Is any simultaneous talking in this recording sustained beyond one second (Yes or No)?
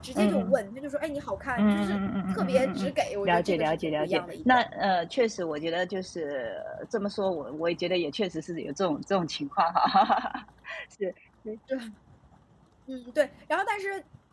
Yes